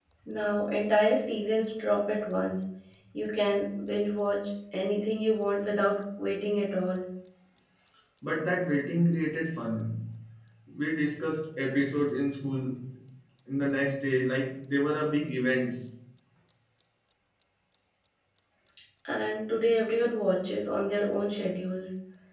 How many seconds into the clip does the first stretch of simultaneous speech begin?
none

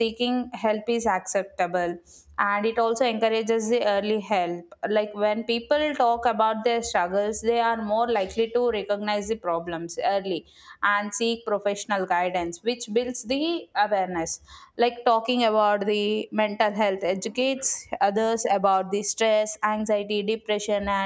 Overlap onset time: none

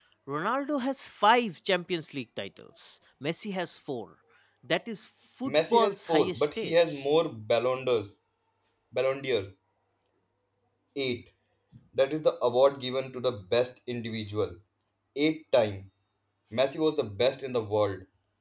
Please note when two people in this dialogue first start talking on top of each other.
5.5 s

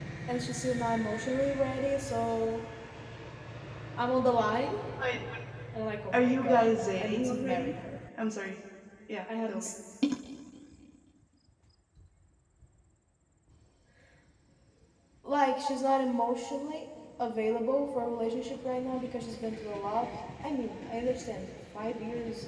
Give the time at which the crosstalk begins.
6.1 s

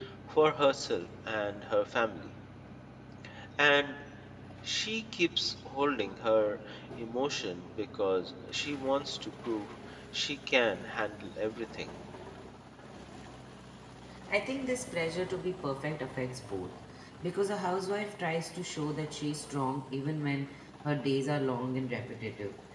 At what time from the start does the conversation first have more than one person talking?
none

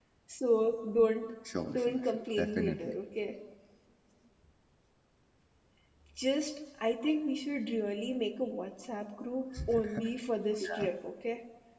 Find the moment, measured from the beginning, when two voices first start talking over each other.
1.7 s

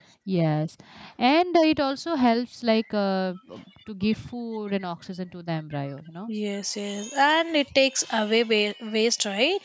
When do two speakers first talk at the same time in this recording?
none

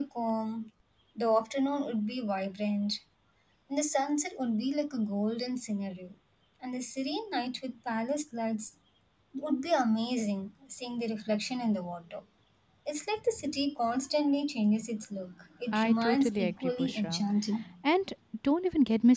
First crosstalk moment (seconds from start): 15.7 s

